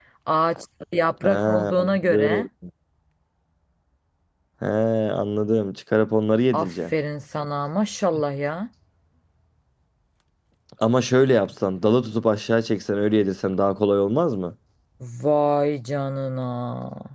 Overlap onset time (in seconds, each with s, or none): 1.2 s